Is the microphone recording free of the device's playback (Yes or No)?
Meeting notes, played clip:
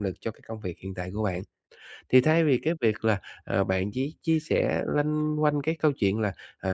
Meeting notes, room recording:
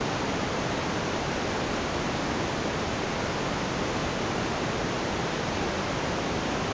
Yes